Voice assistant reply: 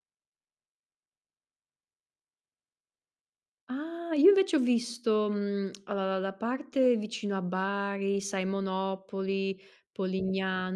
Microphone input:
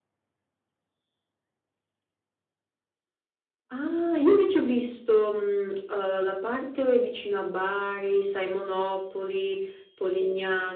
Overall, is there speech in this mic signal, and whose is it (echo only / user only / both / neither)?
echo only